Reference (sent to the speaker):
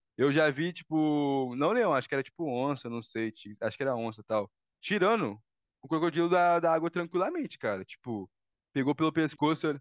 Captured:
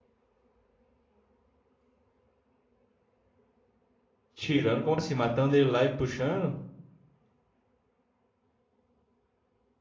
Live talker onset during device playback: 4.3 s

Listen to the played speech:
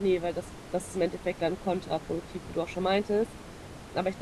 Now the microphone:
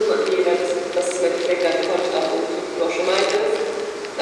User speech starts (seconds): none

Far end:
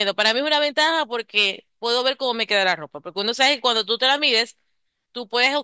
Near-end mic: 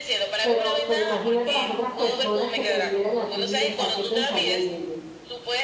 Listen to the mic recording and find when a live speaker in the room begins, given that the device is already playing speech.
0.4 s

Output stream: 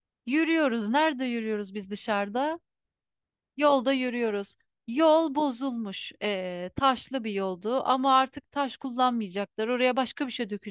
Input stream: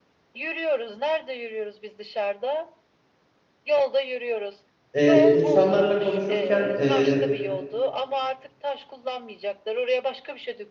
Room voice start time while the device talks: 5.0 s

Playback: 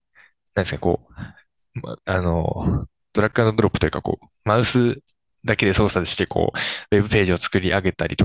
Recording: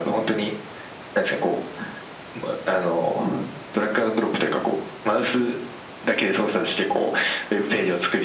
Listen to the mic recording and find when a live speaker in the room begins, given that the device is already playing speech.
none

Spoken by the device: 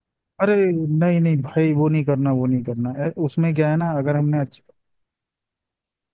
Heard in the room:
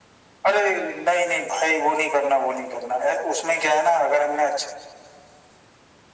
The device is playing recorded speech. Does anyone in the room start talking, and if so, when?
none

